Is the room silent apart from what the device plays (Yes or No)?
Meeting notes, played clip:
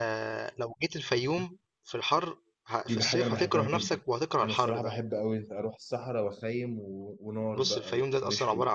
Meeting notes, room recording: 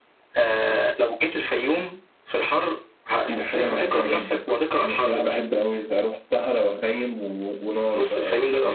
Yes